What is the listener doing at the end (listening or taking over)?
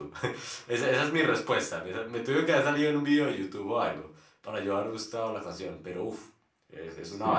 taking over